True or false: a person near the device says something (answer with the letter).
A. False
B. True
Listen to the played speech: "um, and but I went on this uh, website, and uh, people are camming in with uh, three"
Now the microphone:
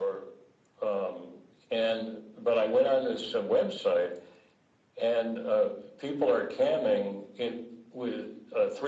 A